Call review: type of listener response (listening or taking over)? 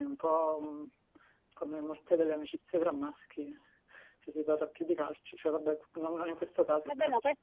taking over